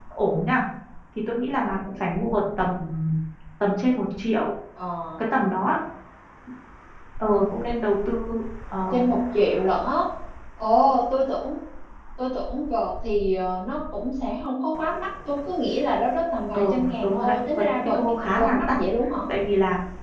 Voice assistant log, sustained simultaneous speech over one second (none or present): present